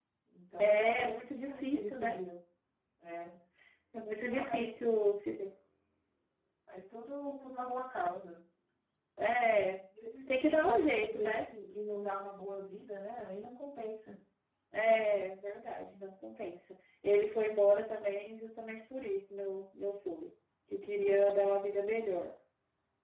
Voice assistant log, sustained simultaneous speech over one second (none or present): present